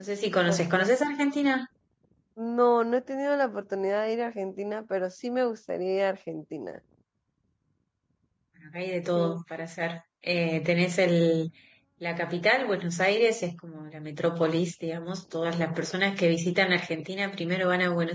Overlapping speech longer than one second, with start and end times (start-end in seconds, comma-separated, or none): none